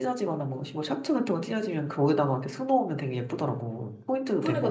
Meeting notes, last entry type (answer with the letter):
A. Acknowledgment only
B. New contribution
B